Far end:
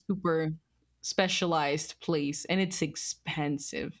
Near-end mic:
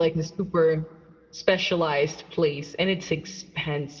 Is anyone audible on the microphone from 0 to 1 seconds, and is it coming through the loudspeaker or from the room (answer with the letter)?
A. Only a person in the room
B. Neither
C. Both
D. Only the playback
D